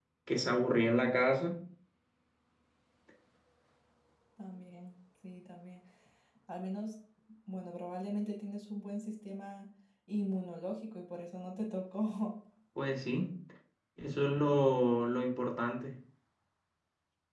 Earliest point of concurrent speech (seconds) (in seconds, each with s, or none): none